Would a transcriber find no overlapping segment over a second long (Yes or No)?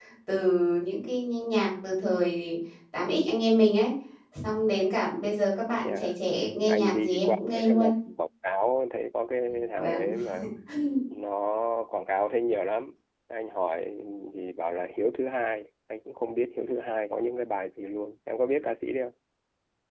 No